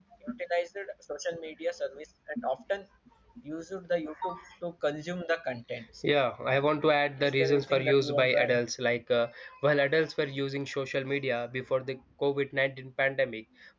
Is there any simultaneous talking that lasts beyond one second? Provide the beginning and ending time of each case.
7.2-8.6

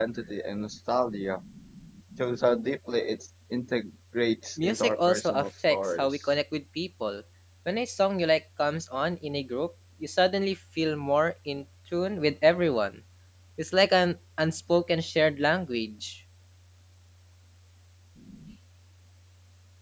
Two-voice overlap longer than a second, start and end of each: 4.6-6.2

